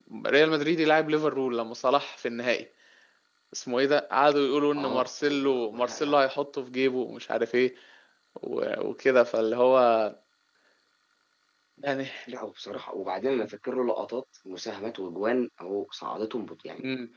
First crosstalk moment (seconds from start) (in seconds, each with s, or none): 4.8 s